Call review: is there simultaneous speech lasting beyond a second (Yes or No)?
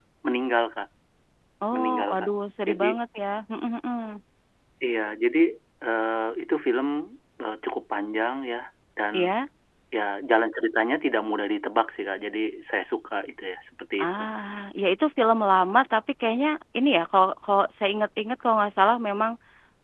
No